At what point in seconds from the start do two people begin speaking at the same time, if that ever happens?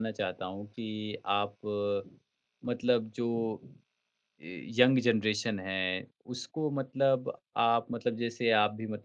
none

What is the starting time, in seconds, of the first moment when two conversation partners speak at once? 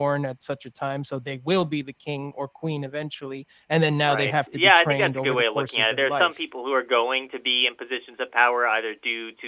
4.0 s

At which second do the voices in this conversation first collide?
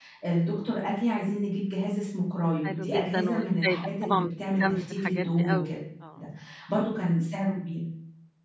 2.6 s

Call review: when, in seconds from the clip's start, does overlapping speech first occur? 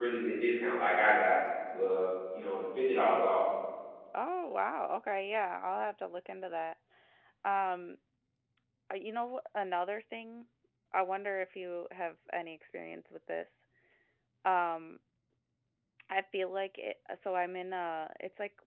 none

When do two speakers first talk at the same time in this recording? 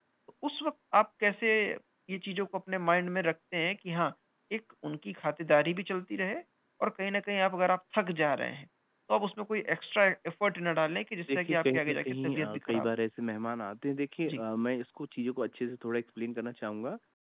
11.3 s

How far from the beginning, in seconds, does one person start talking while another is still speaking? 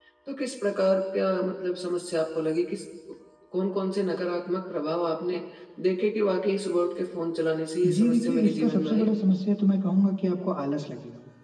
7.8 s

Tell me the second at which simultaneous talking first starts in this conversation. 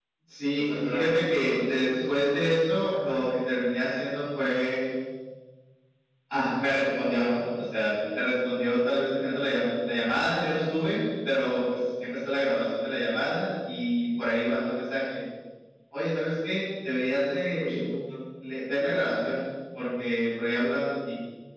0.5 s

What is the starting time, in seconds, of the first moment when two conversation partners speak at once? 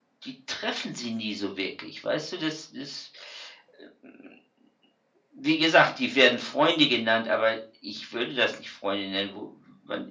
none

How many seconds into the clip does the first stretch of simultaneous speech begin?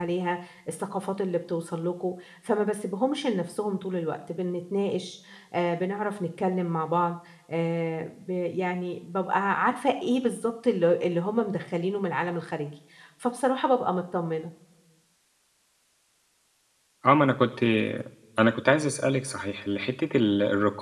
none

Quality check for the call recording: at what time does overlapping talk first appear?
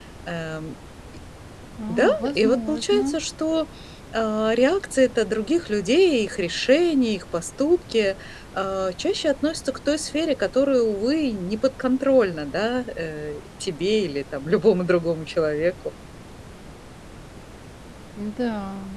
1.9 s

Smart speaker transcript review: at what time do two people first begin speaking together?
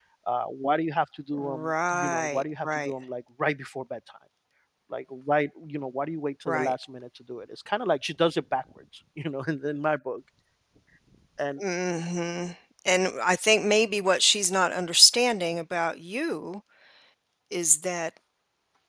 1.3 s

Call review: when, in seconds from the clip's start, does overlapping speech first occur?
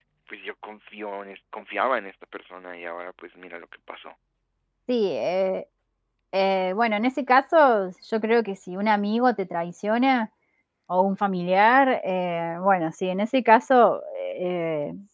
none

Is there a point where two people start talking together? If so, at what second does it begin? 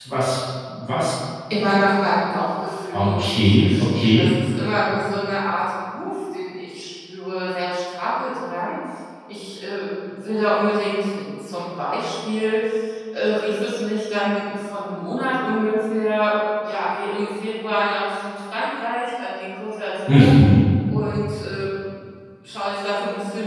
2.9 s

